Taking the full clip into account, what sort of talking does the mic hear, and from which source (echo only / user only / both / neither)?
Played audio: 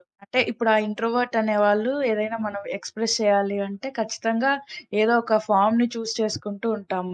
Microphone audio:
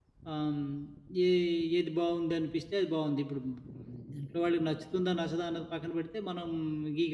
user only